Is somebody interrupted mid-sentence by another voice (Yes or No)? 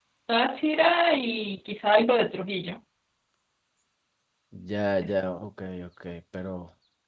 No